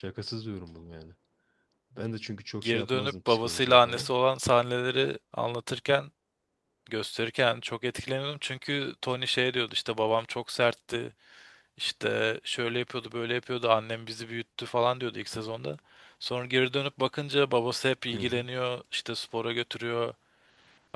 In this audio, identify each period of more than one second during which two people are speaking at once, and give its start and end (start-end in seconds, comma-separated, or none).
2.6-4.1